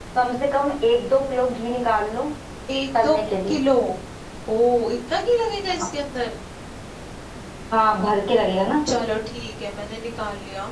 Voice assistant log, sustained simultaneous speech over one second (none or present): none